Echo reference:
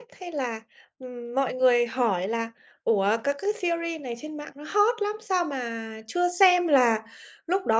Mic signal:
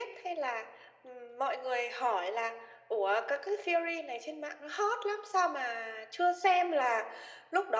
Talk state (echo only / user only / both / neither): echo only